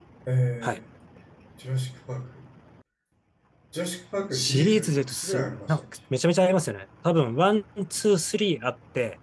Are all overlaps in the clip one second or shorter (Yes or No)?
No